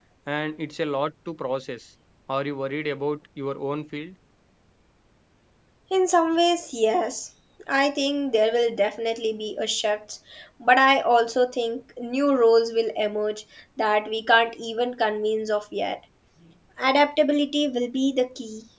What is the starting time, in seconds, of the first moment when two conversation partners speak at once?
none

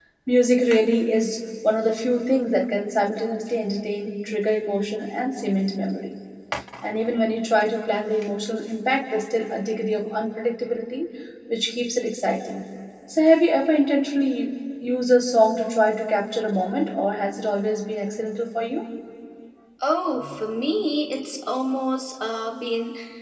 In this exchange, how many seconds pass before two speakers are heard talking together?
none

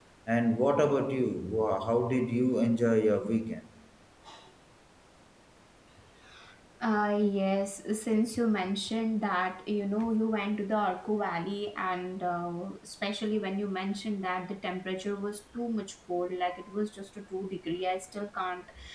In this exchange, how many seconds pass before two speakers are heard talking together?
none

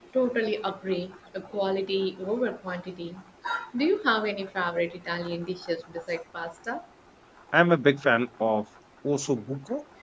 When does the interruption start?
none

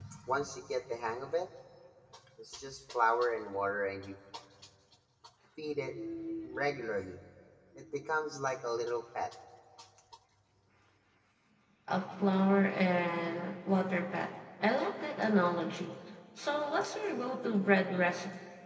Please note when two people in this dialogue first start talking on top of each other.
none

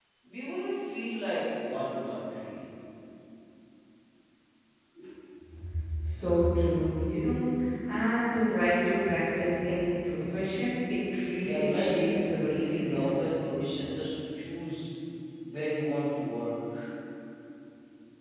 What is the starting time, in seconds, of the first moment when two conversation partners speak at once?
11 s

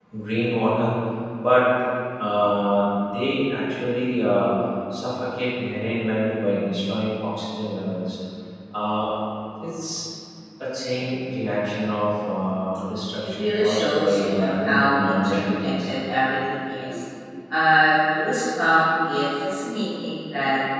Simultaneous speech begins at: 13 s

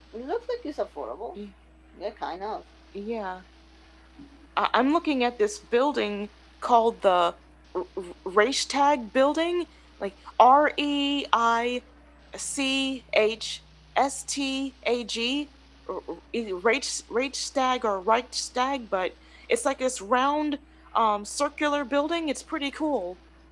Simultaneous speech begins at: none

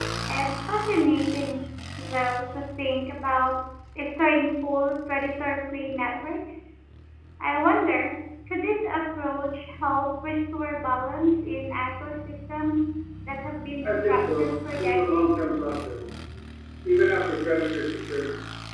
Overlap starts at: 14 s

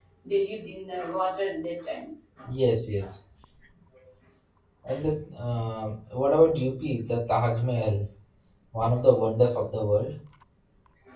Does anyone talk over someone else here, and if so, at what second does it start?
none

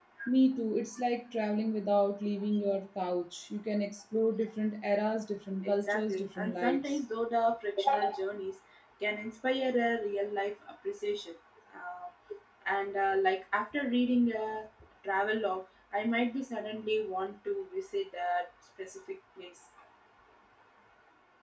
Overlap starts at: 6 s

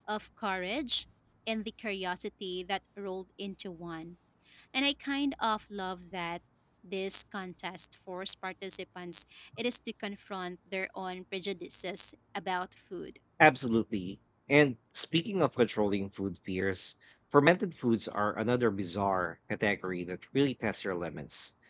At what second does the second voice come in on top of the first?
none

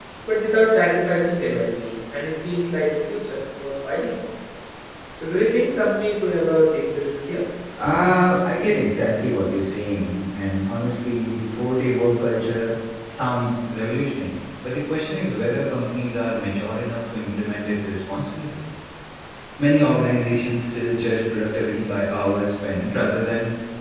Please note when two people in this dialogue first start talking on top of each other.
none

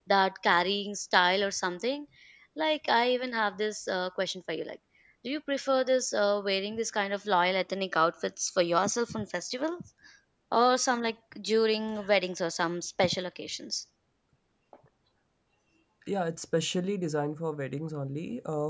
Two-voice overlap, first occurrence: none

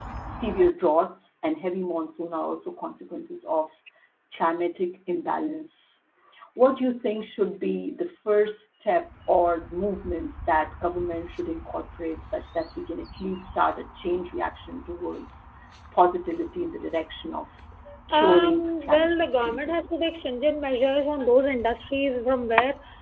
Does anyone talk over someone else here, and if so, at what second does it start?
18 s

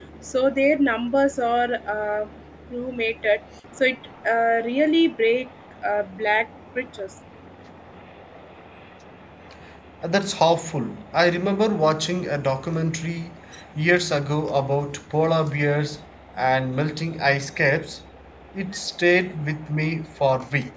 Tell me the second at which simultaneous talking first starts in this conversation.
none

